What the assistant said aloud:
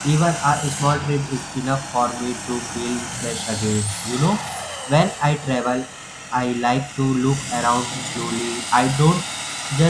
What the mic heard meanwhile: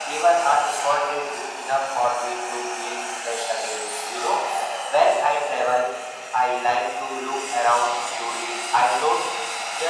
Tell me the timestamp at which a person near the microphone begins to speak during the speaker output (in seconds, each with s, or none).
none